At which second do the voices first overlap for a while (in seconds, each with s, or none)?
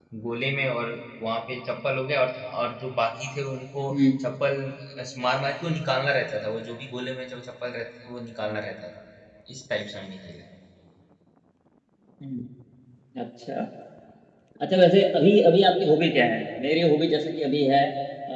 none